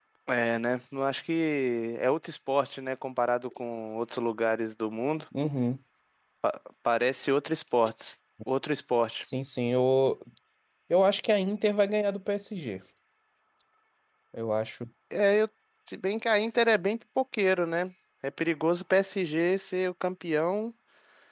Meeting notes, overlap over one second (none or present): none